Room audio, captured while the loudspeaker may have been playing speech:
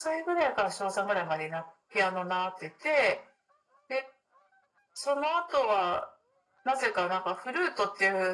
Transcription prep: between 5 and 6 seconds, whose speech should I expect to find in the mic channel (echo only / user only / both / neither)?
echo only